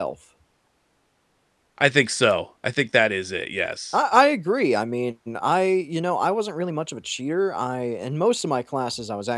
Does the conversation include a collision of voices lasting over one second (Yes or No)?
No